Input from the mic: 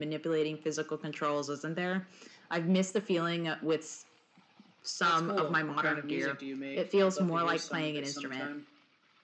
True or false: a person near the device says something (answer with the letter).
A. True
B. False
B